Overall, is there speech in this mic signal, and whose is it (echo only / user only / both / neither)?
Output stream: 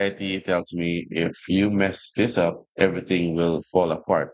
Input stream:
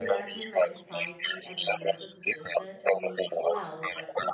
both